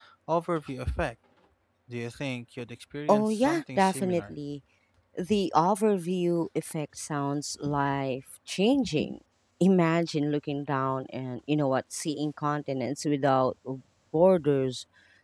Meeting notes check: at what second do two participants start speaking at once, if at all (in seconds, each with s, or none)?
3.1 s